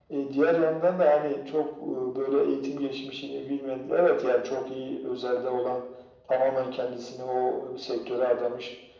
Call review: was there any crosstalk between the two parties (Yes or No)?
No